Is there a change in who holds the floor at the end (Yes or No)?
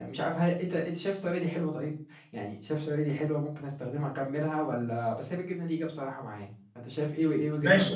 Yes